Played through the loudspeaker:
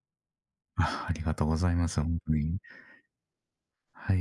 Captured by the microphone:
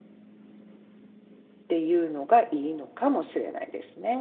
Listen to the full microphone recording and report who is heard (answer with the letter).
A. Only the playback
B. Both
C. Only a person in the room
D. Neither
C